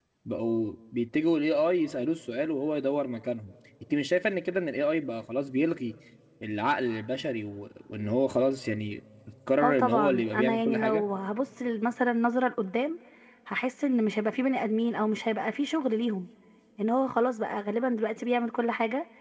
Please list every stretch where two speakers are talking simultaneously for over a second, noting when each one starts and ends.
9.6-11.0

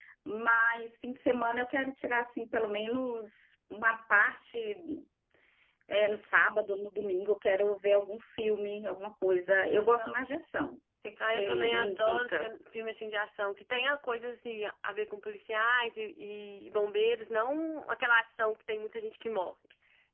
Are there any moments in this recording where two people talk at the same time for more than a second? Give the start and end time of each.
11.2-12.4

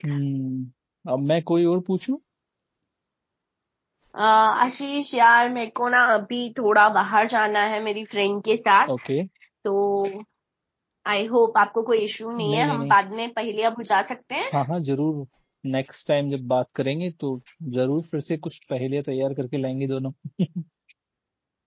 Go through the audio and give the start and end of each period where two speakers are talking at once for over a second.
none

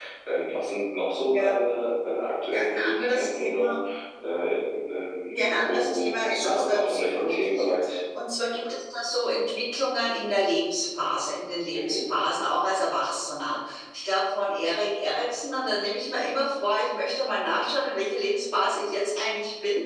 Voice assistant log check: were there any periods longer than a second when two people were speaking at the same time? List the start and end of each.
2.5-3.7, 5.3-7.7

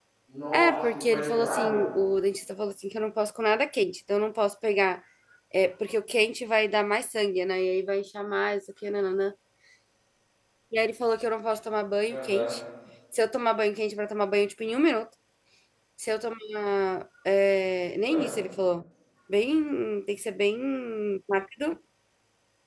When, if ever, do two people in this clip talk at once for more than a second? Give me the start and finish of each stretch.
0.5-1.8

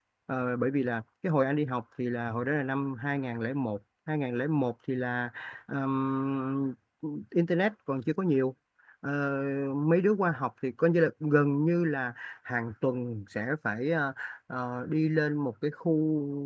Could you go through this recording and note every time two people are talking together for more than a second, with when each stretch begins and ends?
none

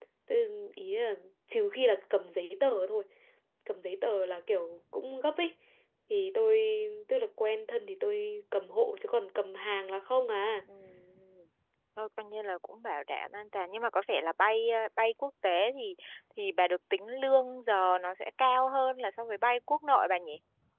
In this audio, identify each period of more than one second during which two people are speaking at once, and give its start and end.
none

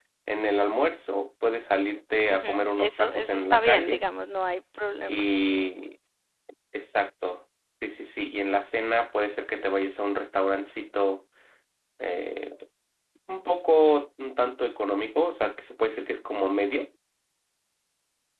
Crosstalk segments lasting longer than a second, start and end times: 2.3-4.0

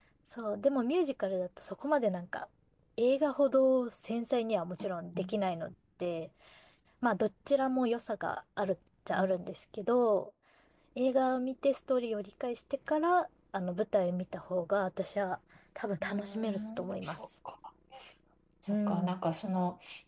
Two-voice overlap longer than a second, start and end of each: 16.0-17.3

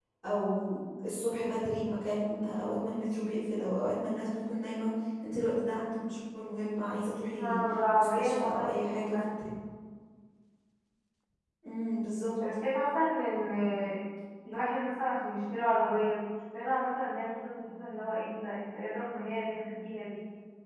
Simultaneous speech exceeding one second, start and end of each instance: 8.0-9.5

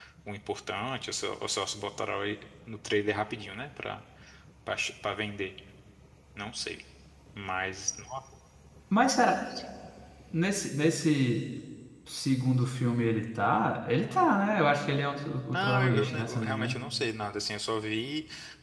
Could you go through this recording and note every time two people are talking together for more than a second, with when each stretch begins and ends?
15.5-16.8

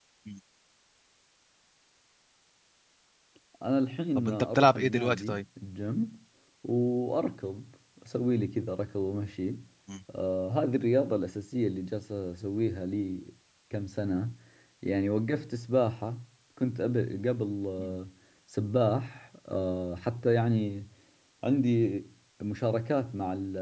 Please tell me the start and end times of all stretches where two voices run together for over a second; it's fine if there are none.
4.2-5.4

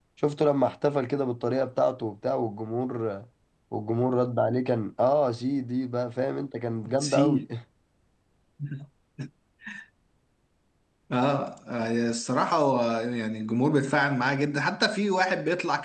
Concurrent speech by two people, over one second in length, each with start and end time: none

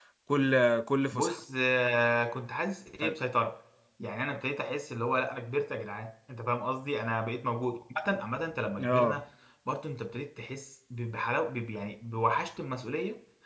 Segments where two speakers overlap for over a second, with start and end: none

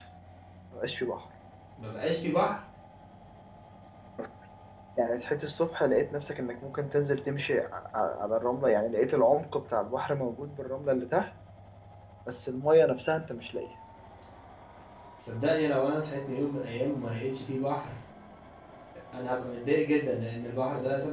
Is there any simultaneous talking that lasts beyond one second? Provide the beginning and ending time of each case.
none

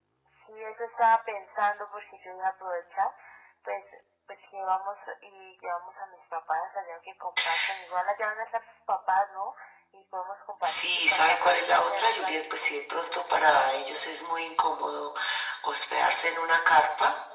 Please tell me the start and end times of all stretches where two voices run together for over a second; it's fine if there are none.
10.6-12.7

